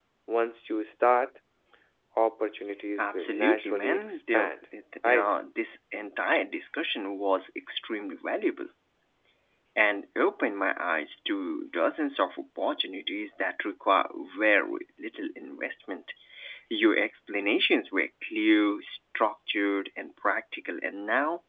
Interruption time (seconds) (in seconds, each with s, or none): 3.0 s